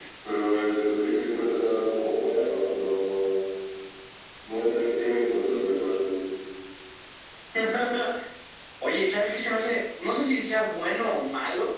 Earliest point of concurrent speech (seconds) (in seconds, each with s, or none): none